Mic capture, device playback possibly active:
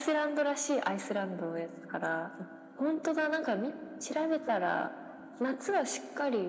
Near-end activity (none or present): none